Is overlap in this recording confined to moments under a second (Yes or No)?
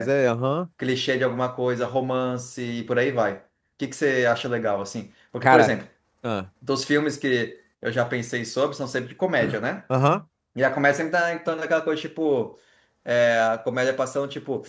Yes